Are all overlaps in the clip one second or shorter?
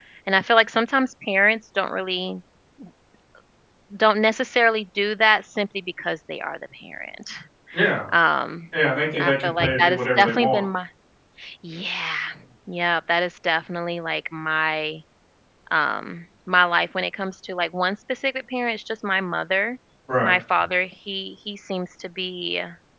No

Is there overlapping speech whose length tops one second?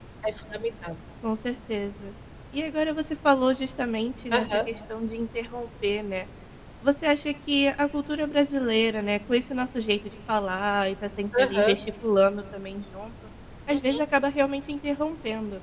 No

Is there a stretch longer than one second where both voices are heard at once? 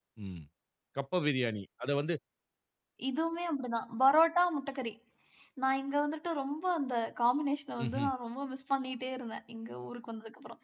No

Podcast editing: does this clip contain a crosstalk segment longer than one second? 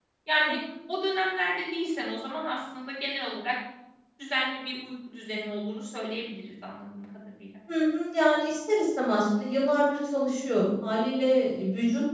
No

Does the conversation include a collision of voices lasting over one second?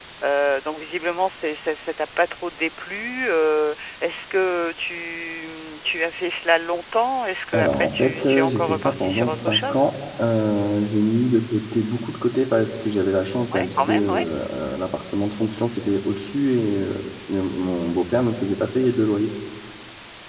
Yes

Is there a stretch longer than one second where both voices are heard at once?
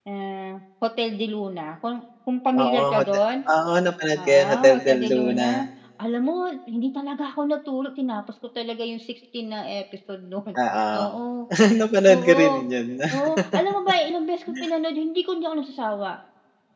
Yes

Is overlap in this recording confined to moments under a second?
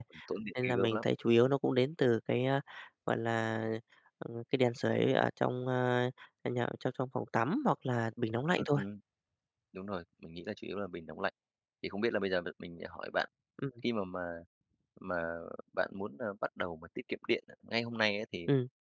Yes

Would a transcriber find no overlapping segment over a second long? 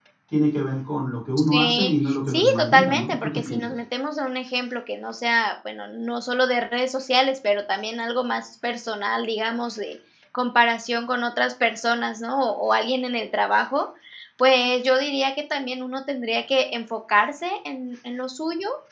No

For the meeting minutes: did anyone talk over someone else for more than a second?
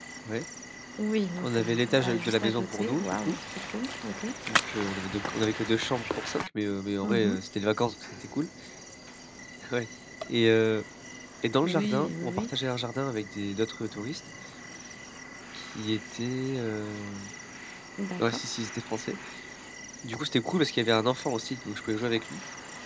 Yes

